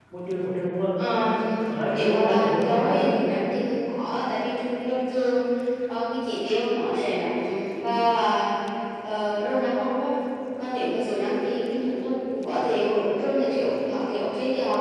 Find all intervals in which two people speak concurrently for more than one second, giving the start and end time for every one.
1.9-3.1

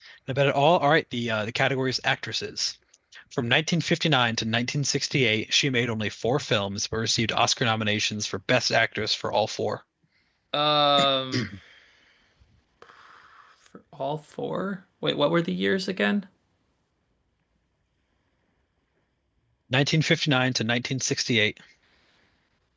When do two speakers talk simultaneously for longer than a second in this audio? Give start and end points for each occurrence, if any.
none

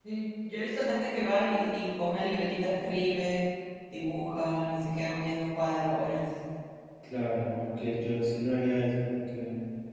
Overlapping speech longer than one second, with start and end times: none

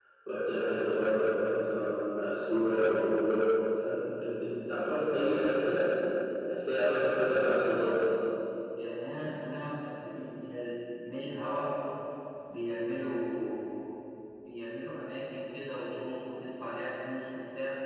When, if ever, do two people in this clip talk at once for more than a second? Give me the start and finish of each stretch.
none

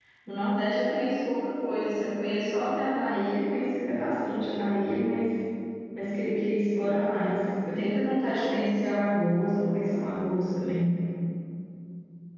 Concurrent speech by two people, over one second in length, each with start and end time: none

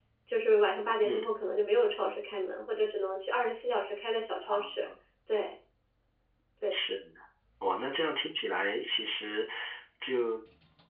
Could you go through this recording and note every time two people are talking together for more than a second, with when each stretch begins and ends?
none

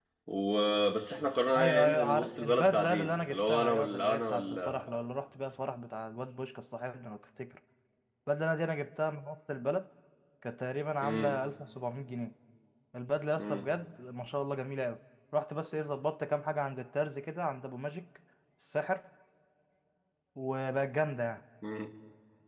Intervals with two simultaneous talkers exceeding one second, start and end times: 1.6-4.8

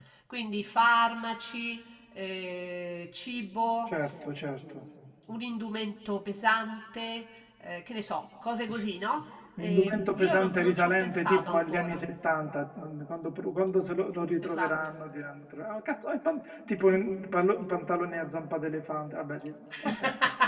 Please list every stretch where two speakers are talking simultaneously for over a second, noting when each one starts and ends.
9.6-12.0

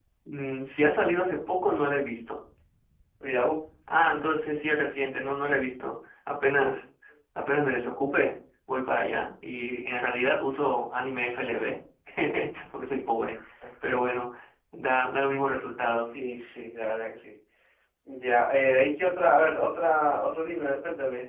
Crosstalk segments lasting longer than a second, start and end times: none

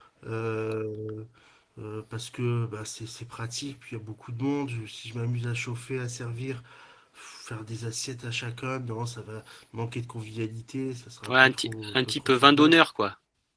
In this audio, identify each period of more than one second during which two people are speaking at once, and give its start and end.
11.3-12.8

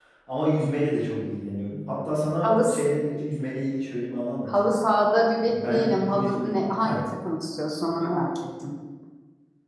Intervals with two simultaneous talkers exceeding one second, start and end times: 5.5-7.0

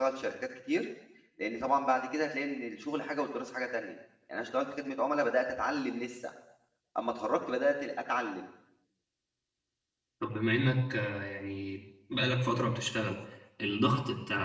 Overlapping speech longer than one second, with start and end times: none

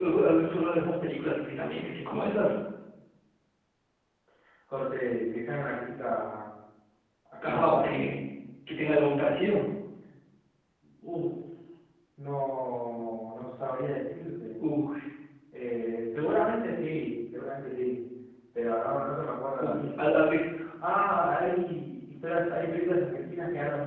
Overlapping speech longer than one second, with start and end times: none

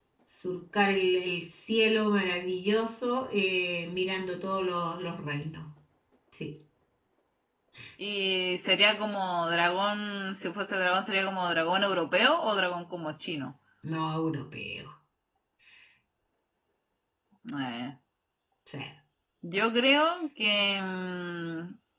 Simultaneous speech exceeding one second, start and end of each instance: none

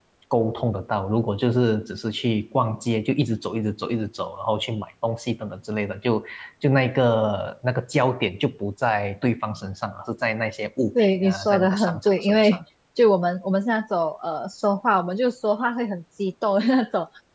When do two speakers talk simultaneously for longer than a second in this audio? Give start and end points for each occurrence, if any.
11.0-12.6

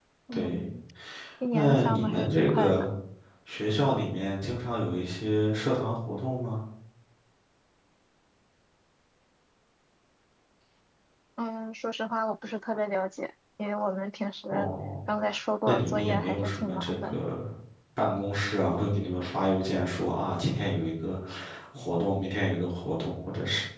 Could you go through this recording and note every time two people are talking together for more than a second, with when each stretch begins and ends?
1.5-2.8, 15.7-17.2

